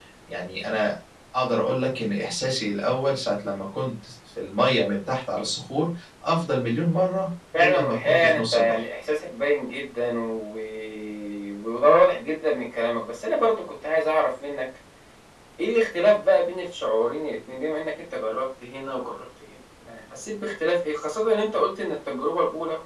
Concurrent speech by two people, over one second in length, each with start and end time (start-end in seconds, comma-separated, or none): 7.5-8.8